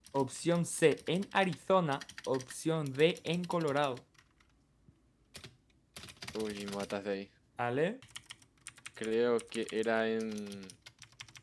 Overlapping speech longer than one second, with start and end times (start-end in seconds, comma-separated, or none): none